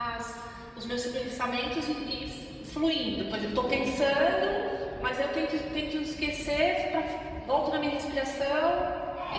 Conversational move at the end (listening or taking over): taking over